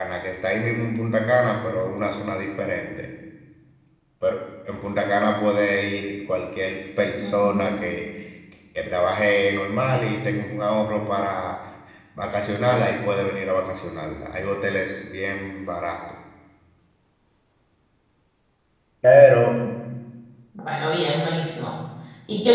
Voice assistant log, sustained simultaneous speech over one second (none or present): none